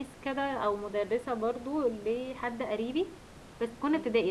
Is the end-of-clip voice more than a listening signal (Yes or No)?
No